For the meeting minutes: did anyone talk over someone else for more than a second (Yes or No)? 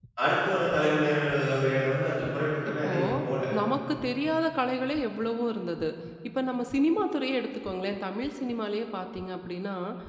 No